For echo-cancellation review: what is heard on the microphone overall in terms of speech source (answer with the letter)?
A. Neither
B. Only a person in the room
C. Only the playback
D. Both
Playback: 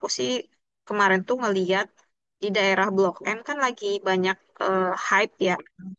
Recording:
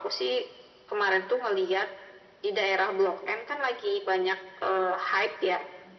C